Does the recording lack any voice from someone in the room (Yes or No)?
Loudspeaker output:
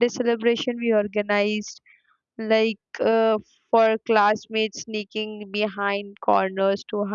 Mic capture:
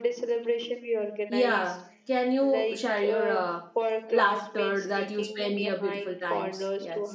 No